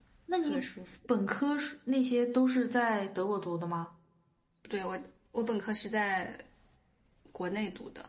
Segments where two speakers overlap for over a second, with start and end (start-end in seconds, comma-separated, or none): none